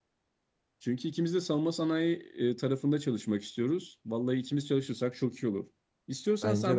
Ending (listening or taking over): listening